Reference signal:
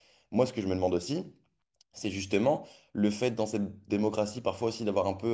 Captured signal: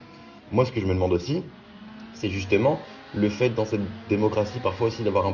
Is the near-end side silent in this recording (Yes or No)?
Yes